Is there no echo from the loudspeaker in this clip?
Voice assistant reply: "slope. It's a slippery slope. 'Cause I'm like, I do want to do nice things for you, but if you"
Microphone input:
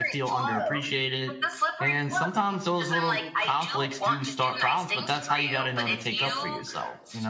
No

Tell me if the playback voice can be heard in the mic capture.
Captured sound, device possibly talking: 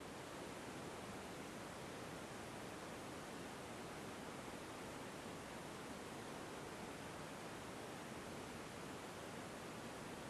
No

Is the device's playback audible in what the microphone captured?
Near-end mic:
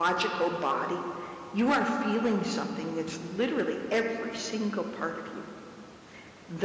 No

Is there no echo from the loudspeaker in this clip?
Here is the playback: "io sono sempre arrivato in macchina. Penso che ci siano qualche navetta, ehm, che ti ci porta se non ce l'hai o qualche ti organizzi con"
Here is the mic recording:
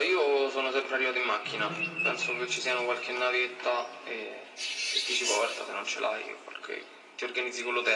No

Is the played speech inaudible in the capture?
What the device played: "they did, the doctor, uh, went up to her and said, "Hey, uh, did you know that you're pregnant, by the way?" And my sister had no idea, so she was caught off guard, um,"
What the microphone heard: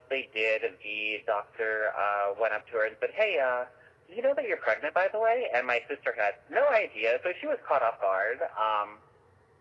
No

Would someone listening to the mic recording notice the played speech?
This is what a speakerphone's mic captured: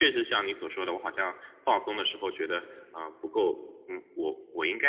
Yes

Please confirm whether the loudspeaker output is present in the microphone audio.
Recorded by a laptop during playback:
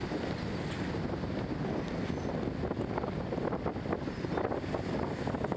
No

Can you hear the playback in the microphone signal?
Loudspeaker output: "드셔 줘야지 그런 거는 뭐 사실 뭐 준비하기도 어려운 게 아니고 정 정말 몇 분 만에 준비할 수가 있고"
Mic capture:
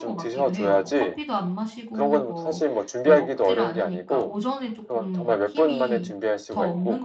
Yes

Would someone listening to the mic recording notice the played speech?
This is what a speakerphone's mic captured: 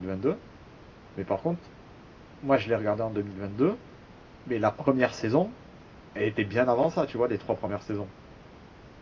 No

